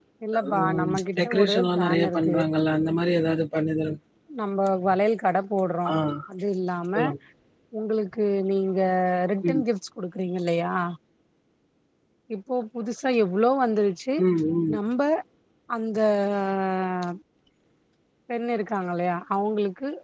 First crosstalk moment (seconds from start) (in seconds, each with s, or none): 0.6 s